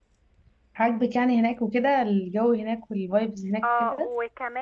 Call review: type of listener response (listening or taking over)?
taking over